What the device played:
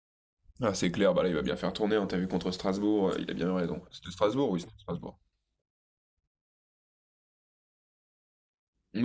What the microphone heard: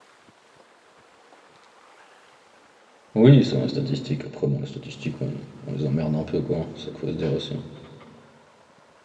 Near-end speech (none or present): present